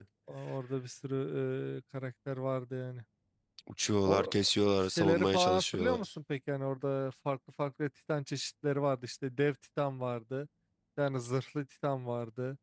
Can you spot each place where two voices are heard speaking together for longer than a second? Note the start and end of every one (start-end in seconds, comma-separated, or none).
4.8-6.1